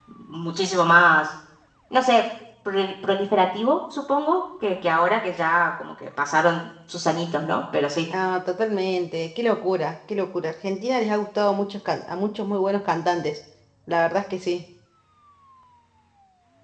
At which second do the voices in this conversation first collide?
none

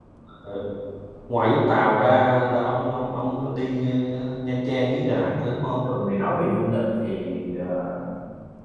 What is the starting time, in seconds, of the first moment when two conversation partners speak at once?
none

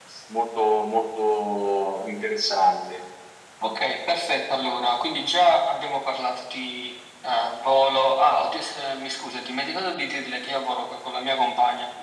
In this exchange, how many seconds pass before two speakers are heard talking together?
none

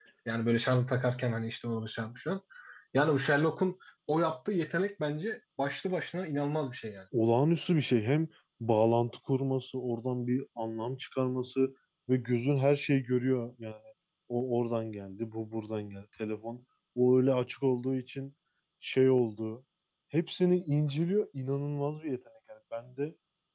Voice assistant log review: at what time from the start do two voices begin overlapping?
none

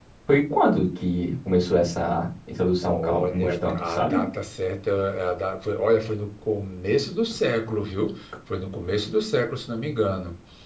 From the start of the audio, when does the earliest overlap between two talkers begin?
3 s

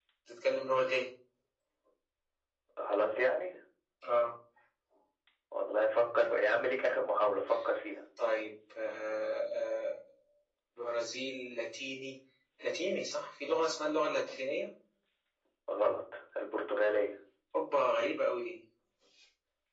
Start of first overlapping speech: none

